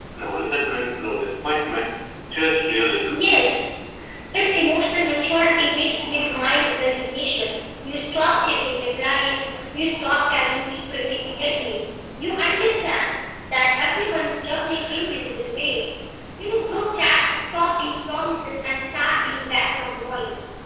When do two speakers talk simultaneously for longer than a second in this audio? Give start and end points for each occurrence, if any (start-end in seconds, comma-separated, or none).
none